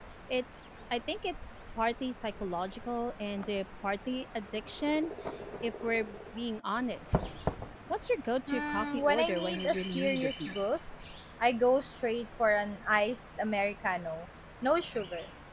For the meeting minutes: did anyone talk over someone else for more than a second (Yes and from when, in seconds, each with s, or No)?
Yes, from 8.5 s